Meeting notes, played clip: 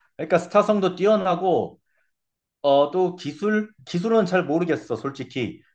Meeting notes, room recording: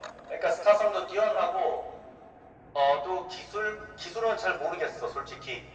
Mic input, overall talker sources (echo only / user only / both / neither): echo only